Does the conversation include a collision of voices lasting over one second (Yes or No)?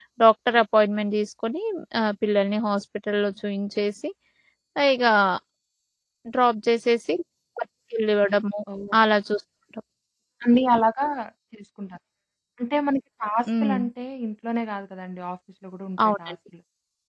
No